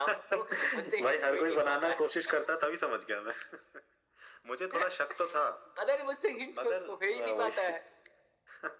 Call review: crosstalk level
present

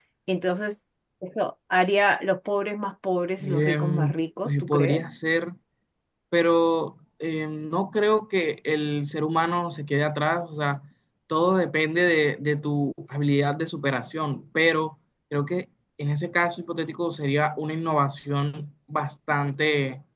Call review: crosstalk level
present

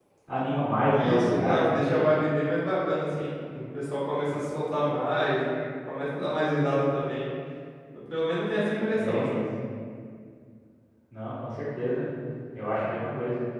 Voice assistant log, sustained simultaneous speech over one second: present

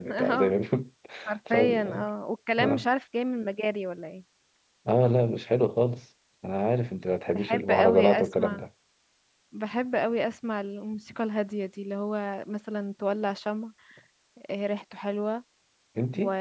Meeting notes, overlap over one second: present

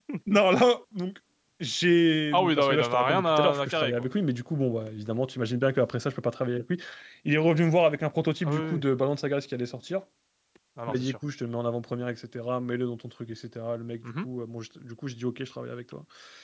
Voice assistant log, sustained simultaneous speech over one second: present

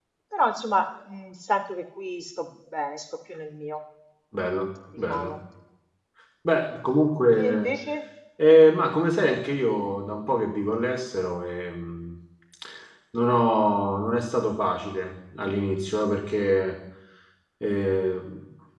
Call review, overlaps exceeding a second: none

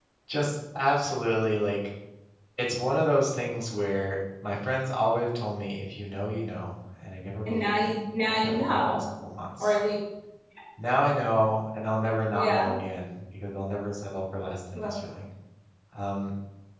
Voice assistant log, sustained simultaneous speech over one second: present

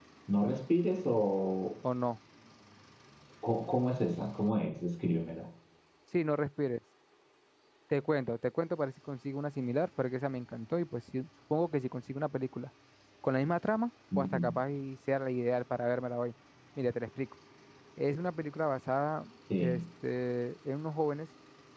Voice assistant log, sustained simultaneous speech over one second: none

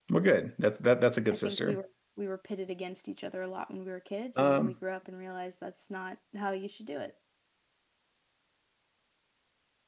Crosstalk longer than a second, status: none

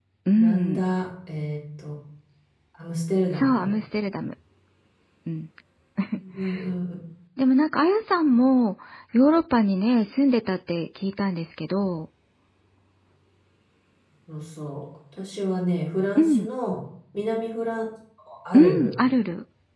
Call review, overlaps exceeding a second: none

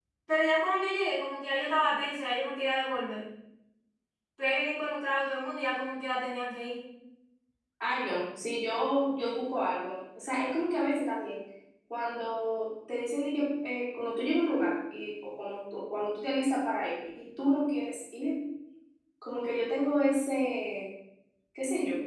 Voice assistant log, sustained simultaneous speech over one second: none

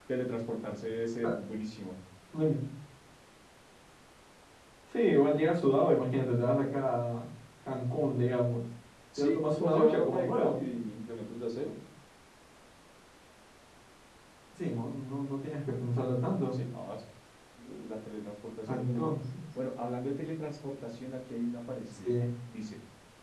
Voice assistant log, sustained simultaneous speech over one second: present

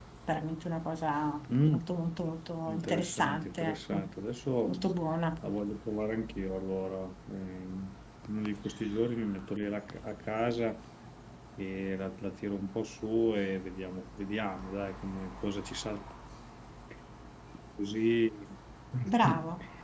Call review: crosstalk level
present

